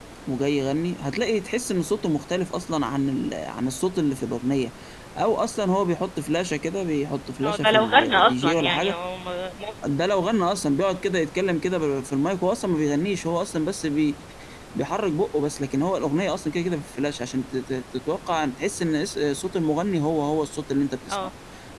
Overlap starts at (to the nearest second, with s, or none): 7 s